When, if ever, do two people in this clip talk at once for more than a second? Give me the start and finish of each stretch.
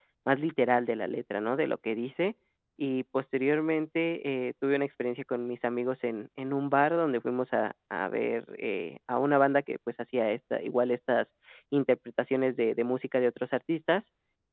none

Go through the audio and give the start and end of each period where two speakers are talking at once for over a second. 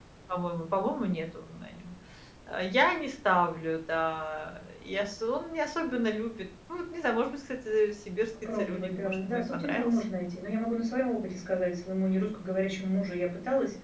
8.6-9.9

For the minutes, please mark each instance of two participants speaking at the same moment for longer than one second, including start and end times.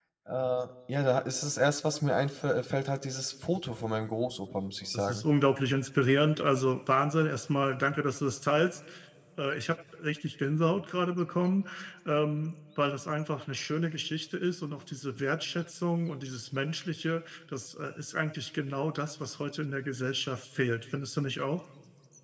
none

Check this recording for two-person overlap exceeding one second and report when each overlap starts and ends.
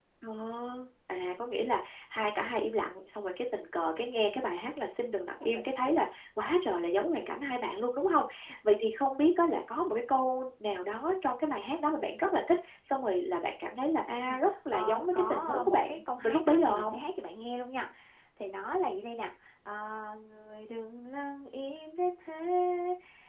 14.3-17.0

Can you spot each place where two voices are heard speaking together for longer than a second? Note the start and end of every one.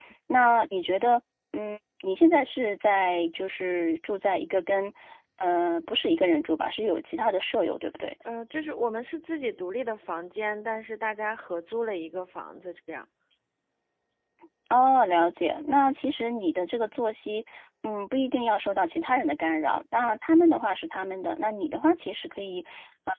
none

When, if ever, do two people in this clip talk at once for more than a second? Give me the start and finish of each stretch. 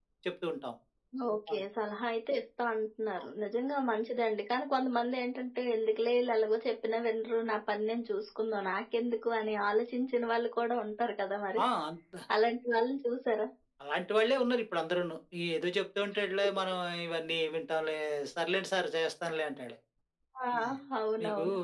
none

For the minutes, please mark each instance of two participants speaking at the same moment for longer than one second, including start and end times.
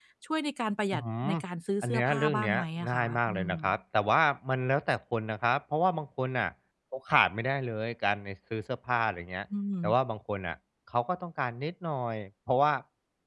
1.8-3.6

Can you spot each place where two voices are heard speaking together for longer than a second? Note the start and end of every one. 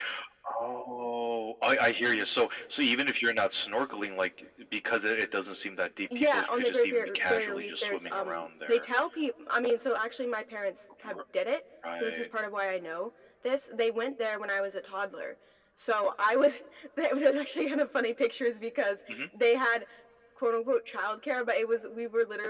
6.2-8.8

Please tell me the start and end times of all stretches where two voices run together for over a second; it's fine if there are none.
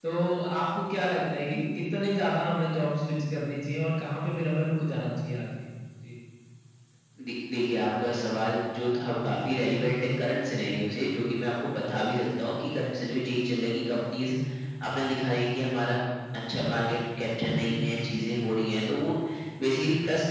none

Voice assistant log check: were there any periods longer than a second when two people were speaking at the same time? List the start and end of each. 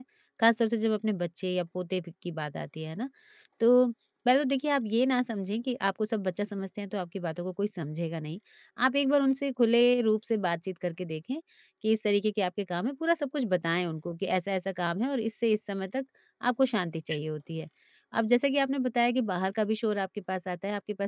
none

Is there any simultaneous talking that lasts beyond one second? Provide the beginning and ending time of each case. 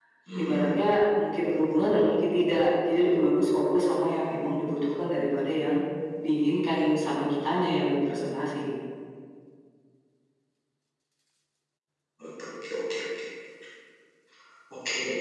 none

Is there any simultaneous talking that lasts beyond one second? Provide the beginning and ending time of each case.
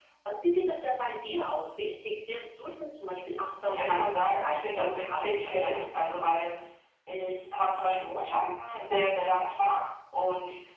3.4-5.8

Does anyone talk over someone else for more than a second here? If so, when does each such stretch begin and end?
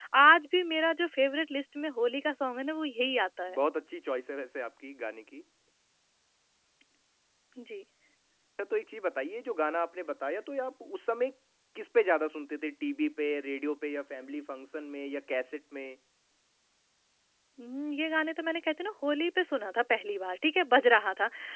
none

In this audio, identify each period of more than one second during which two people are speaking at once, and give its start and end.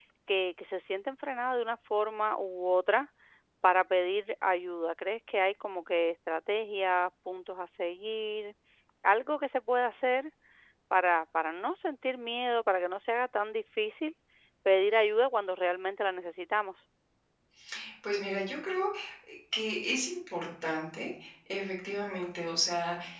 none

